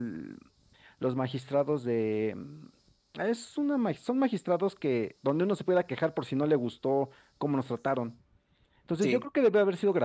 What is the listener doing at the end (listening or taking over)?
listening